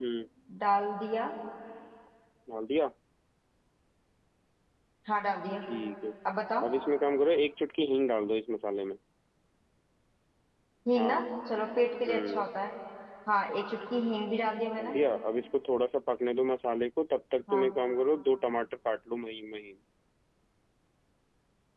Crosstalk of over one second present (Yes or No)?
No